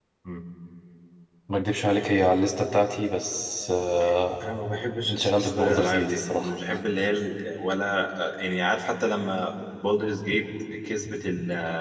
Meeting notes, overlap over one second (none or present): present